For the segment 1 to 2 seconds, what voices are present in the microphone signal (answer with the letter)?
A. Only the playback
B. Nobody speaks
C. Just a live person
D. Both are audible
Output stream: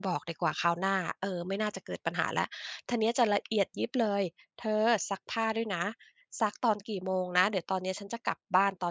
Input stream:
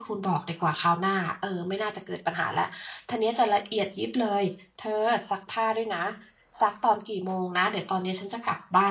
A